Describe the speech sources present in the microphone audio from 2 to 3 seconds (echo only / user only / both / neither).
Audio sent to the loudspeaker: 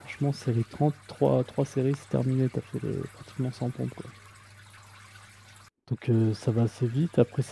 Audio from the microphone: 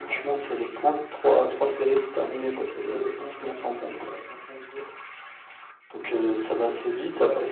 both